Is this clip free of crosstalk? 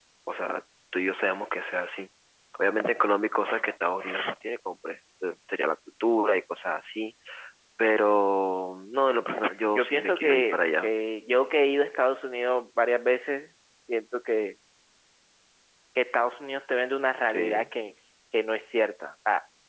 No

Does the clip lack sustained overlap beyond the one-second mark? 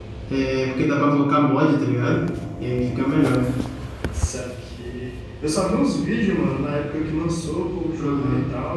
Yes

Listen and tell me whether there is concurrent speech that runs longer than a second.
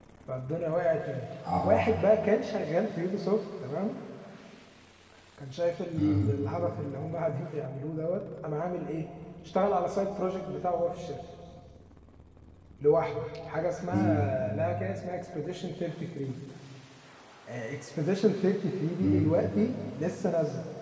No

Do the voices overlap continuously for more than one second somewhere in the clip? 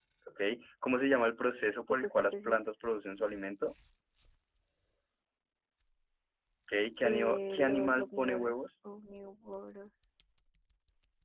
Yes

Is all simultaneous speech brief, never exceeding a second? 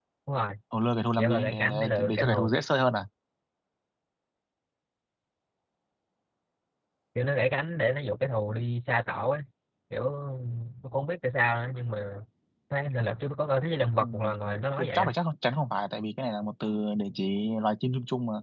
No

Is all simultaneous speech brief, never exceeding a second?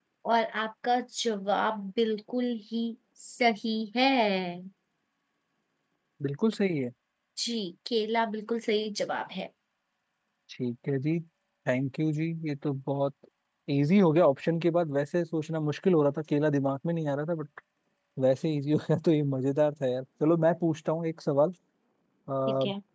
Yes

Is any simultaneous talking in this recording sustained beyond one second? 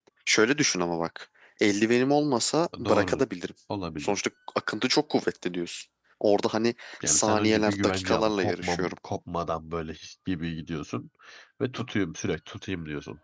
Yes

